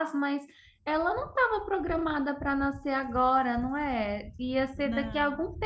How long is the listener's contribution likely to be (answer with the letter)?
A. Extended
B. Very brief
B